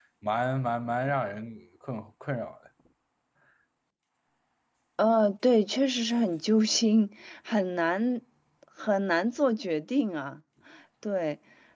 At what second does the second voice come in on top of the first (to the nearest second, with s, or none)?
none